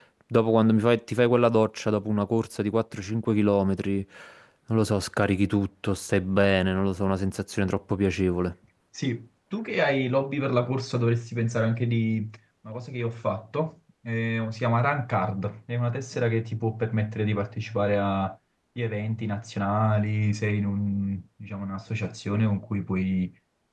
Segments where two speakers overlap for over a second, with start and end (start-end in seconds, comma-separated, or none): none